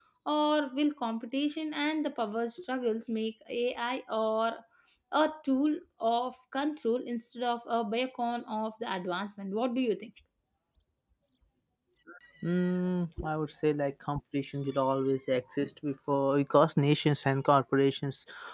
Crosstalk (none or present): none